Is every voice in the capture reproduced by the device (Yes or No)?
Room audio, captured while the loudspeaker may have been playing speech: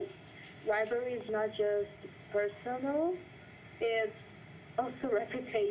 Yes